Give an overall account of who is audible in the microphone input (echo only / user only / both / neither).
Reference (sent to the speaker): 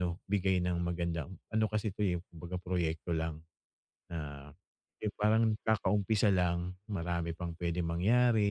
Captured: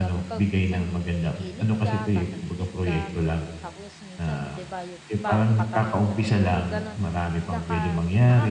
both